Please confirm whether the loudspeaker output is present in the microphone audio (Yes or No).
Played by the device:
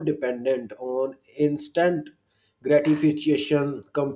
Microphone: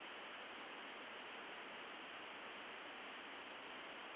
No